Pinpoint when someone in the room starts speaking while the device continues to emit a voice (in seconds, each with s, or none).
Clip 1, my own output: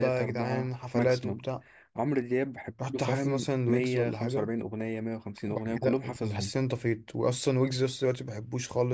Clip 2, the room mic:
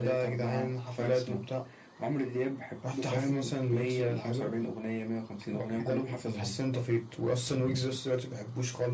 none